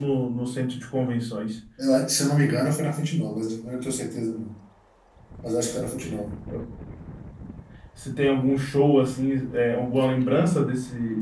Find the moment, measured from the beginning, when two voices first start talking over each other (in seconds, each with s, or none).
none